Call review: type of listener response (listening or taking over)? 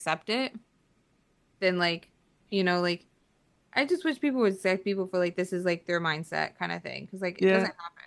taking over